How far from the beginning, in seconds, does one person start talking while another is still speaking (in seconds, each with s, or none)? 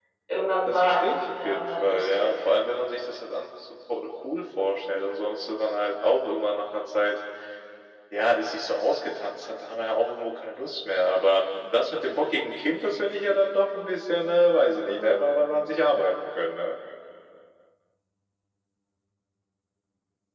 0.7 s